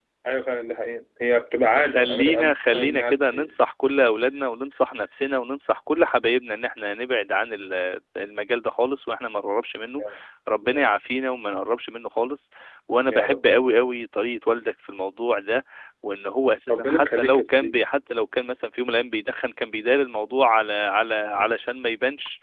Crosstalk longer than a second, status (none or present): present